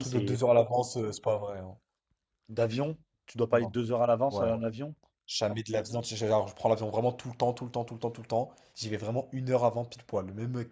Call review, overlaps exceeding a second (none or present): none